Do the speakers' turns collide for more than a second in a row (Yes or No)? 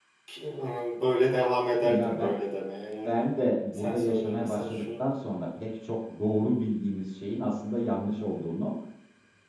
Yes